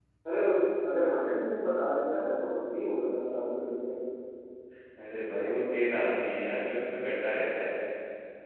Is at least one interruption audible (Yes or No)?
No